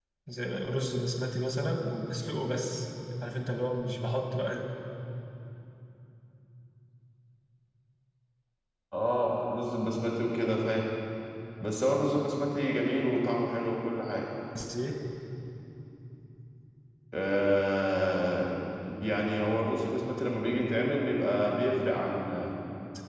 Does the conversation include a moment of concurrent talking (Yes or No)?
No